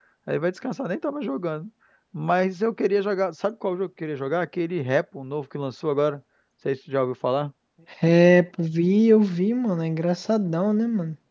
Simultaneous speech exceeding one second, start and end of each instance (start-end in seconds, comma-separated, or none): none